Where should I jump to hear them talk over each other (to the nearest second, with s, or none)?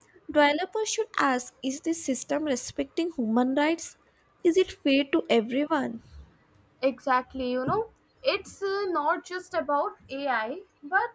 none